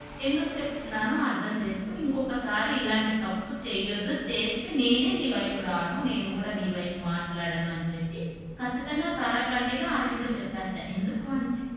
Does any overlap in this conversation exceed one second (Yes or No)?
No